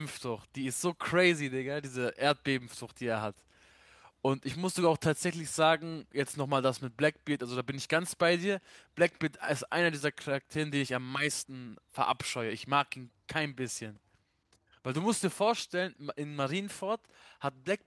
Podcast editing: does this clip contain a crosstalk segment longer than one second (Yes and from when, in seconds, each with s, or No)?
No